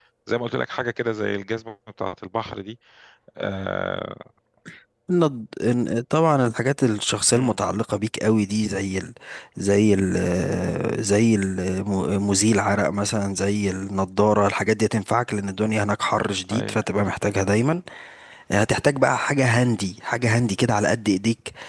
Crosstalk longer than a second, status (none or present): none